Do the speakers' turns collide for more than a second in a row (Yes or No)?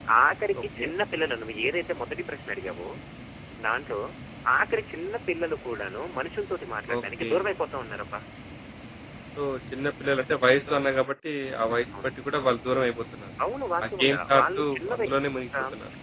Yes